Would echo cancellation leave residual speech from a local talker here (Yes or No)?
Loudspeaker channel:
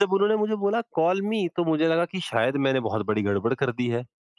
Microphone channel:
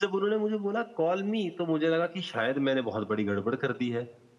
No